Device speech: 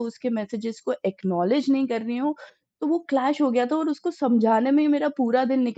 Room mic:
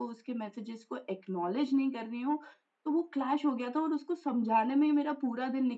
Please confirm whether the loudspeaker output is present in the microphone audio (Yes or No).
Yes